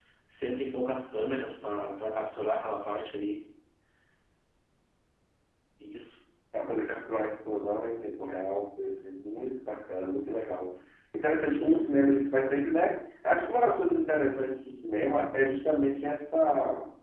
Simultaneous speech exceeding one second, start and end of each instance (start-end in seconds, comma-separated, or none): none